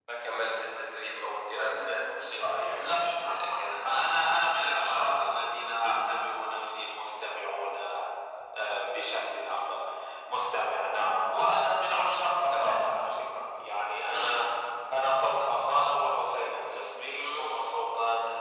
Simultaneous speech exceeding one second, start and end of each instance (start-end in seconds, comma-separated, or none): 1.7-5.6